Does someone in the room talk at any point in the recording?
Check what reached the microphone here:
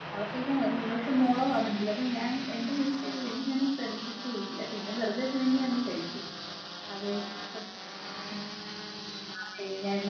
Yes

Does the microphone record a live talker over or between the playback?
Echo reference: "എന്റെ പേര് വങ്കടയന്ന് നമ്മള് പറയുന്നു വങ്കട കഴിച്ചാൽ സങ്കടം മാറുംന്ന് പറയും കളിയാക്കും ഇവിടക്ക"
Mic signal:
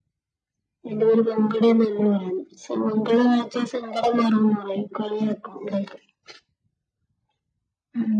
No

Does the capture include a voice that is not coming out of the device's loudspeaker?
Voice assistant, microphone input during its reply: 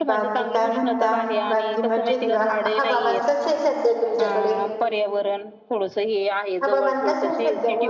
Yes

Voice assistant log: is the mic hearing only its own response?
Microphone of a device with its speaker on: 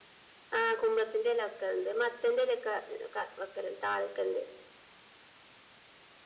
Yes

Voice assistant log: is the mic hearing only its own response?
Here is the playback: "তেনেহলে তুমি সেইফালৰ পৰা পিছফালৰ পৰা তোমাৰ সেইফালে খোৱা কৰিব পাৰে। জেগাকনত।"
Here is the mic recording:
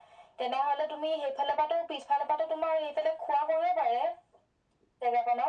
Yes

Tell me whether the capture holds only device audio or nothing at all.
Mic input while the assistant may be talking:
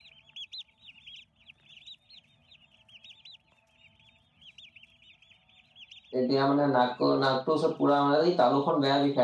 No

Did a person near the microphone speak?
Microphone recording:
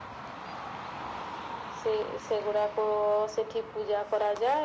No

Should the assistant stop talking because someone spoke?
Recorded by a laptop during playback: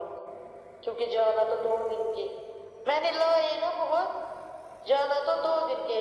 No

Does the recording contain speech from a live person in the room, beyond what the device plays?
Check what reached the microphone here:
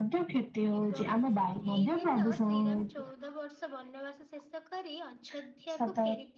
Yes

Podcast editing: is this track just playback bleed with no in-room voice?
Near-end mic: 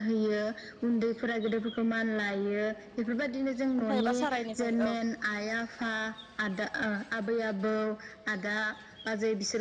No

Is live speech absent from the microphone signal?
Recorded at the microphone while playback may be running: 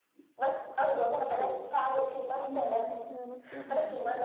No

